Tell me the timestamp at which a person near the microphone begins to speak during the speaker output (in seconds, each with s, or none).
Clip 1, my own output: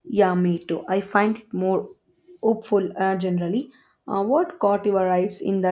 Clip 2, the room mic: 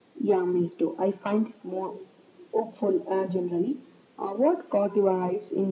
none